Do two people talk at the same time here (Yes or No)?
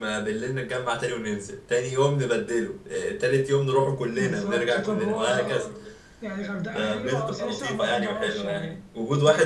Yes